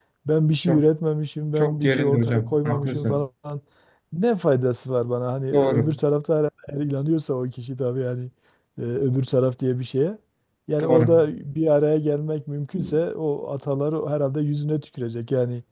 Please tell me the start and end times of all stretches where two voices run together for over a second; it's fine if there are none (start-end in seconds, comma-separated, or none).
1.6-3.2